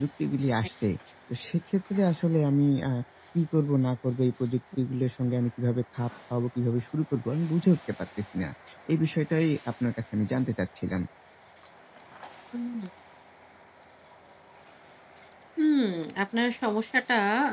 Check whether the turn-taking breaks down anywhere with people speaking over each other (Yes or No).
No